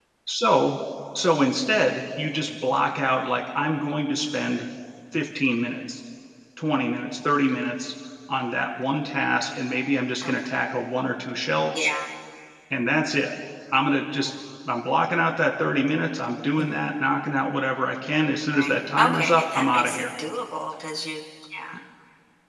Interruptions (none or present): present